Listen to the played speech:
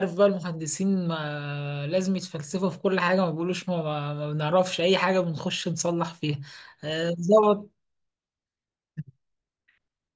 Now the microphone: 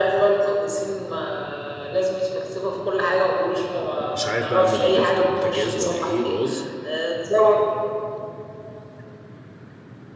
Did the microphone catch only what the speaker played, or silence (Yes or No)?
No